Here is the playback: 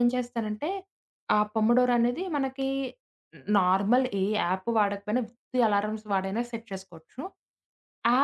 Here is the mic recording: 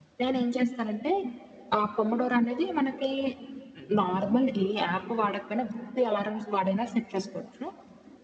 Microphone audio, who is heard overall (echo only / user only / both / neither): echo only